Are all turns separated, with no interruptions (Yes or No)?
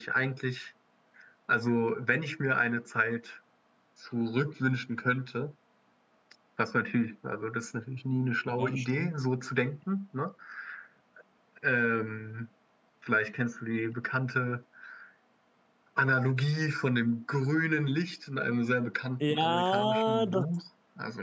No